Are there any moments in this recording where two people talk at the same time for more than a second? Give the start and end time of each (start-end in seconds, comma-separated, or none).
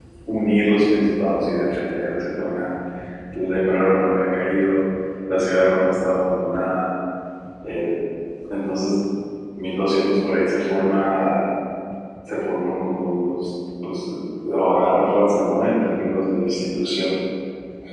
none